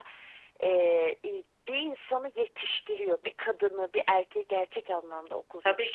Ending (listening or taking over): taking over